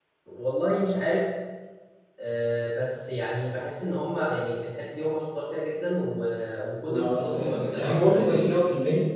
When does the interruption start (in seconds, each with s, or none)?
6.8 s